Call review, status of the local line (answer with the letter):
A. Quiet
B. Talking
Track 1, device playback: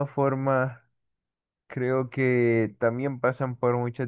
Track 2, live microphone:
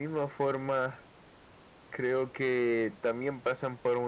A